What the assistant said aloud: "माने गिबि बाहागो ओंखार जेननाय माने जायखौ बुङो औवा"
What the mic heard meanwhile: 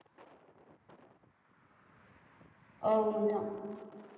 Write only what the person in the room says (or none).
औ नोंथां